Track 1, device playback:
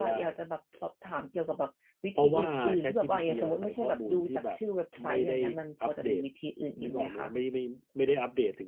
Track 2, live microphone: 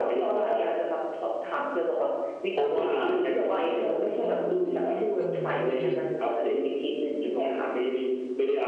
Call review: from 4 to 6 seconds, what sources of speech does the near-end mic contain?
both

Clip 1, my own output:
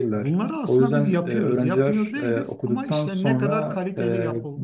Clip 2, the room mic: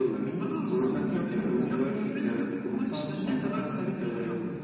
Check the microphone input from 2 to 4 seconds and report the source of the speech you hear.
echo only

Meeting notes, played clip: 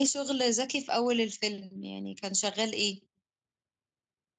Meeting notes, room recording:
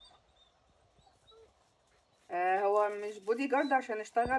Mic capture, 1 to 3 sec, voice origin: user only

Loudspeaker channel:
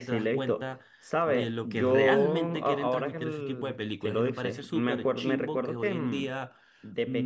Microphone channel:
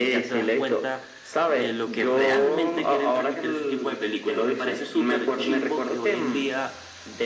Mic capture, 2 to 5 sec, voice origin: echo only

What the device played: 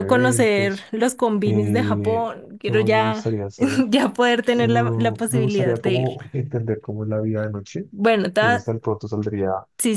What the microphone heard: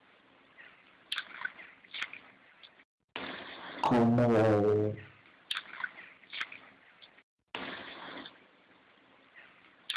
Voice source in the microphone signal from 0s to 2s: neither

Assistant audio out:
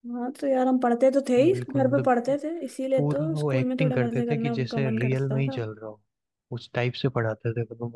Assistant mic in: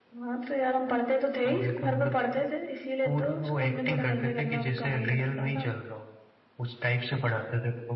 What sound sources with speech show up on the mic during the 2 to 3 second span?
echo only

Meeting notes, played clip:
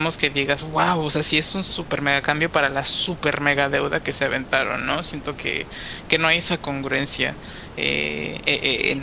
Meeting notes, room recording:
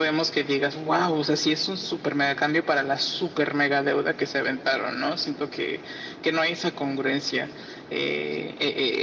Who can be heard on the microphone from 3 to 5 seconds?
echo only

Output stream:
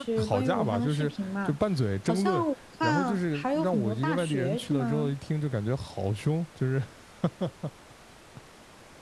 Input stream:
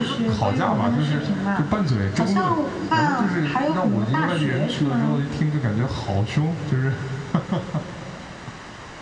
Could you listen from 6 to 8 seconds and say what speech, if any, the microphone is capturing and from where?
echo only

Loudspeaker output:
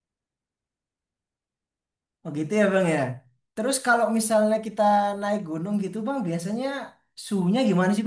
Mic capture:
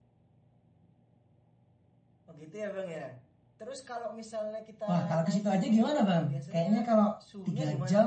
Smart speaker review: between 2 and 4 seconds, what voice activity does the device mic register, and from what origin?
echo only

